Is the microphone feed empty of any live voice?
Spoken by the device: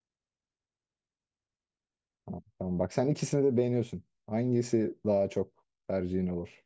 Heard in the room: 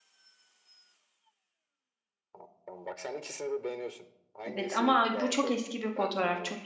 No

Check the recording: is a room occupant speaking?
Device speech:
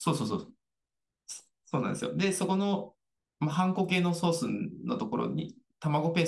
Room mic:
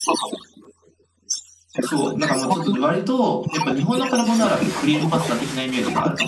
Yes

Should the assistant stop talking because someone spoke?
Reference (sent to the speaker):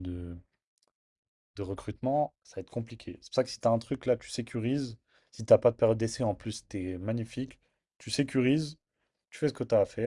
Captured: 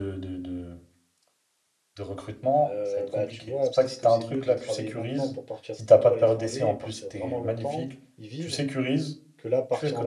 Yes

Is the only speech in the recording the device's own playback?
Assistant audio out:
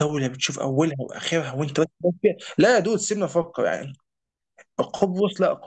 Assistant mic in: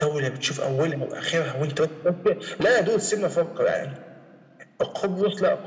Yes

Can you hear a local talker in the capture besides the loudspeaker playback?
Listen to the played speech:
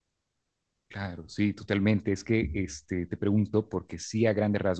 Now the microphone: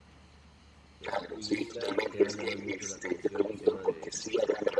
Yes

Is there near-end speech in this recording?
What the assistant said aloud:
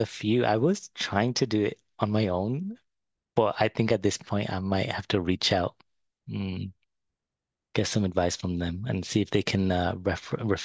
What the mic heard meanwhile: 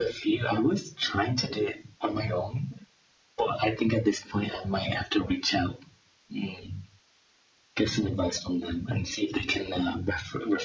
No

